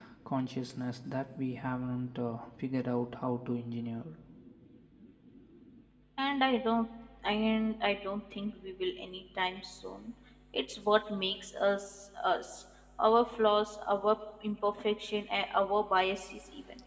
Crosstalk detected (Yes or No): No